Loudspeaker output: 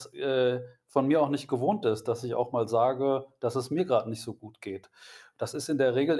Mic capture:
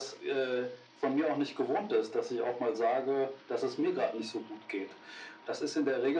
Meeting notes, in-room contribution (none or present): none